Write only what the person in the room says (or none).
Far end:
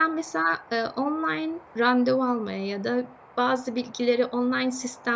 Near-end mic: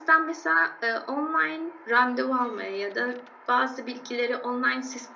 none